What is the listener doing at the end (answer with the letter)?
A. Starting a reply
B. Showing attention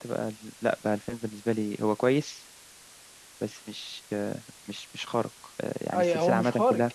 A